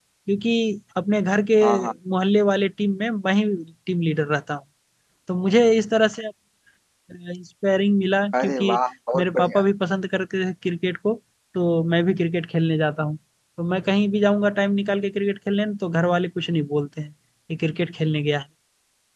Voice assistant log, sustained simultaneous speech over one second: none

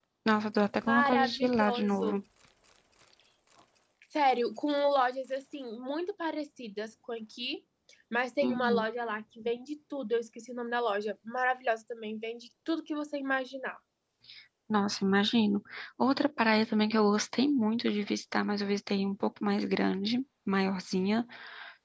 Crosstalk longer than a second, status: present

